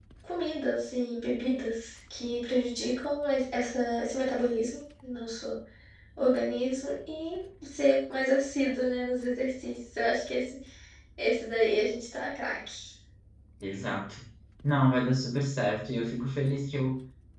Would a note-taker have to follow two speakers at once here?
No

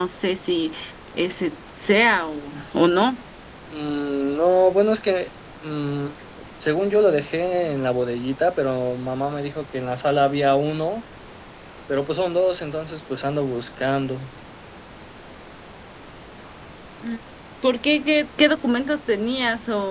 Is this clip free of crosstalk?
Yes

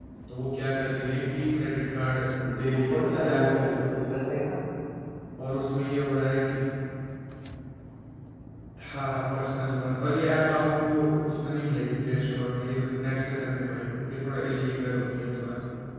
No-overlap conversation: No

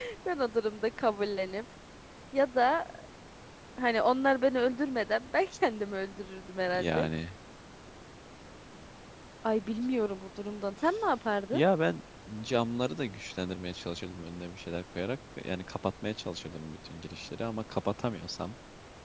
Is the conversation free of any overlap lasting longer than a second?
Yes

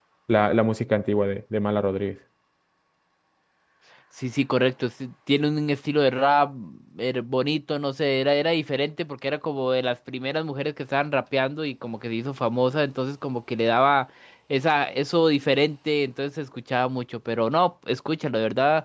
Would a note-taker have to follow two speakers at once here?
No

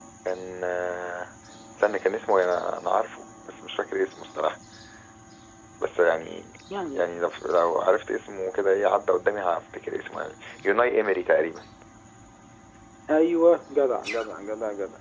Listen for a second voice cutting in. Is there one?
No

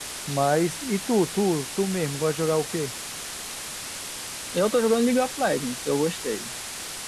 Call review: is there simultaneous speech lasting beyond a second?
No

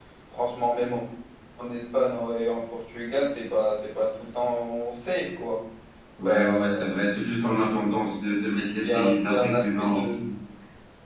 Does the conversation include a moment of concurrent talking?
Yes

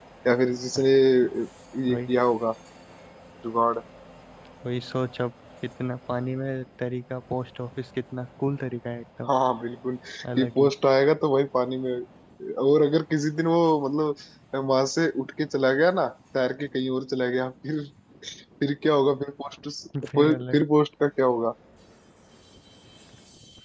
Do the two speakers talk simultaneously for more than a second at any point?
No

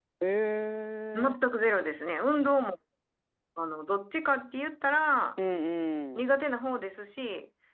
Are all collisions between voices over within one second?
Yes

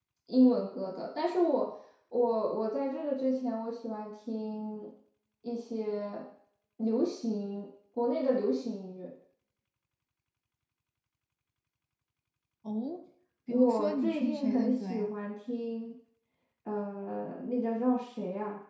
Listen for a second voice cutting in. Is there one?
Yes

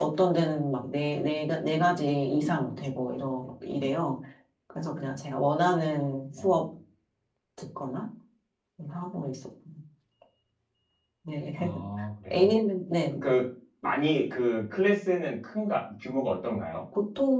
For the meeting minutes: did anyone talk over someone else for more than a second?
No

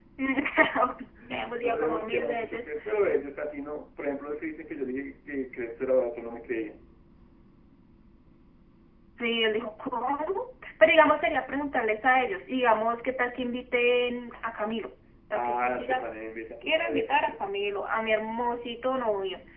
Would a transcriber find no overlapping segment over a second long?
No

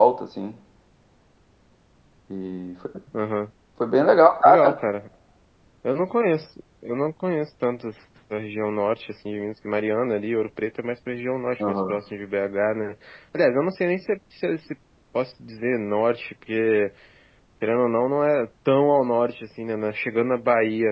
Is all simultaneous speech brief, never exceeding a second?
Yes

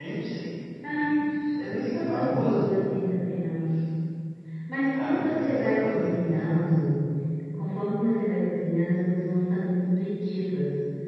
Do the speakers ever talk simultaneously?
Yes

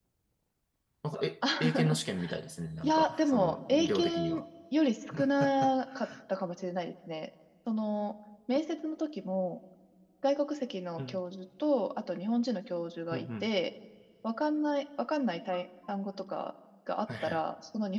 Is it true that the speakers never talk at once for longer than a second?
No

